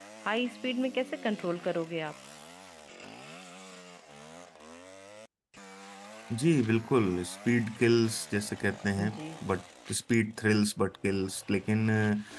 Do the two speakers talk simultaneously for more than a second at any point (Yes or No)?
No